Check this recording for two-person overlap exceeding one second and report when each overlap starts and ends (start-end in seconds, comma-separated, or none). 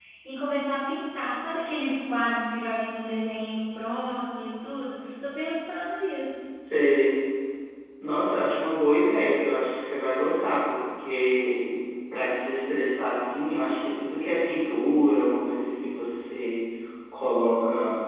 none